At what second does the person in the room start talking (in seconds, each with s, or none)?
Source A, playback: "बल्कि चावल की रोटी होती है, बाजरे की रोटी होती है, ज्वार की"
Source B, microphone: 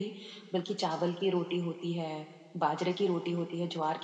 none